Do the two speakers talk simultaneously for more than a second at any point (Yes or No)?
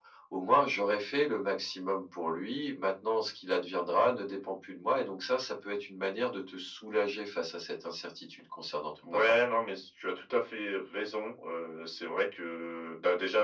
No